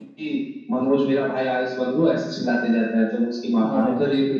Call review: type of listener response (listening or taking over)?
listening